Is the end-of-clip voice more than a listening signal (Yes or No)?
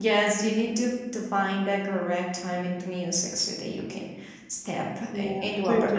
Yes